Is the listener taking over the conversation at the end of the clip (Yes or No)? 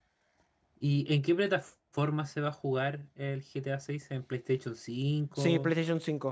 Yes